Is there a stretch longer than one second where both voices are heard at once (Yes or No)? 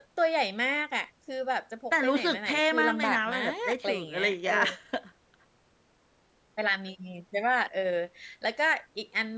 Yes